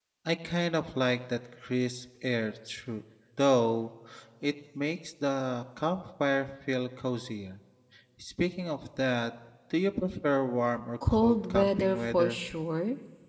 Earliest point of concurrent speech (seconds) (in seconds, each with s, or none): 11.0 s